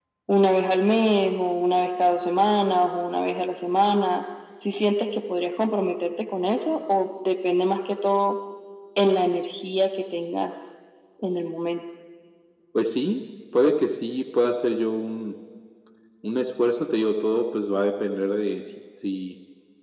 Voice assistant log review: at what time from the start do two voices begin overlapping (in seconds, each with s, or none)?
none